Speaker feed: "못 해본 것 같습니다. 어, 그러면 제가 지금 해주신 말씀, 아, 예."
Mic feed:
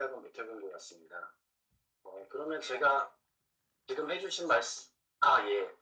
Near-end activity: none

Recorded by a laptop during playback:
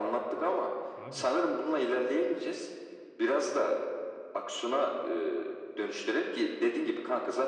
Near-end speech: present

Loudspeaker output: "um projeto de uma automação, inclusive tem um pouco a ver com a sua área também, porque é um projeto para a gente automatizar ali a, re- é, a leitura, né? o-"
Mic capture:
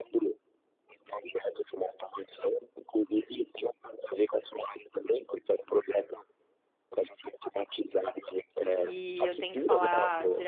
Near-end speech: present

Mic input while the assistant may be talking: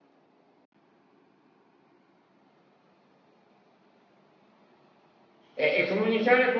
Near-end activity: present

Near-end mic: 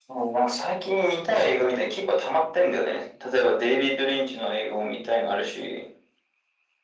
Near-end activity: none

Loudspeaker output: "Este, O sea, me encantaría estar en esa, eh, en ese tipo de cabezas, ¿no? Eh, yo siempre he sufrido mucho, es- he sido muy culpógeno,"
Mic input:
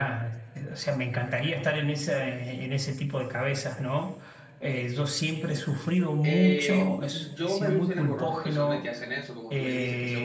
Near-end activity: present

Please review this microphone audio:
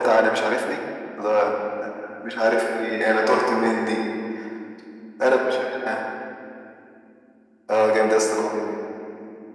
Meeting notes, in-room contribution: none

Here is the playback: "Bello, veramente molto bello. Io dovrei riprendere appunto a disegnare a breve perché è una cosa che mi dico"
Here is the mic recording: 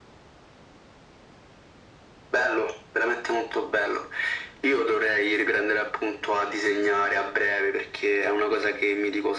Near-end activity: none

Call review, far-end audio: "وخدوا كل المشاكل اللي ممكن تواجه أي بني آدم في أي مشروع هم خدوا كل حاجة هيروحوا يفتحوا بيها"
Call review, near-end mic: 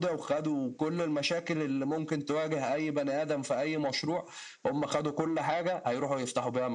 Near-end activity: none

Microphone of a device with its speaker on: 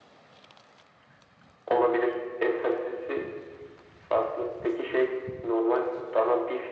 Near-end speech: none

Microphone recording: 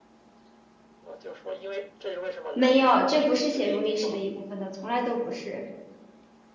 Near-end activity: present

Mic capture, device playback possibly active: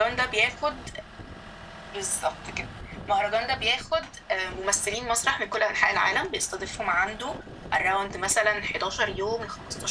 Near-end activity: none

